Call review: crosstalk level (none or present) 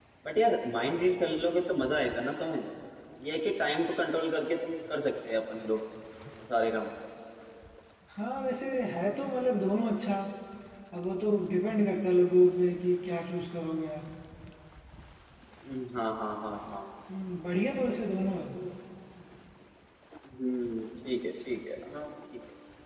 none